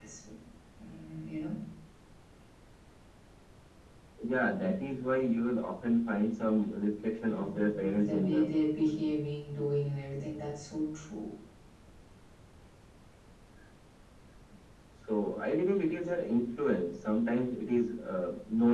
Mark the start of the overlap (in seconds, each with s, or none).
7.2 s